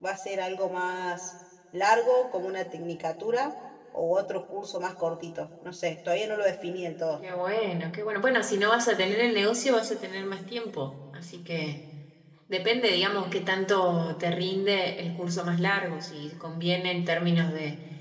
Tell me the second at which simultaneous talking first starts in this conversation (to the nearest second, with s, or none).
none